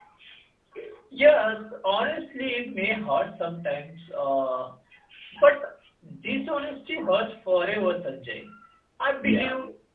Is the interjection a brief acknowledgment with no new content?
Yes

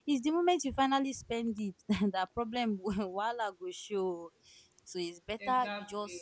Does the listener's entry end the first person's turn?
No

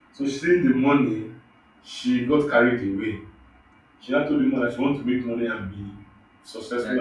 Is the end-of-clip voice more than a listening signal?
No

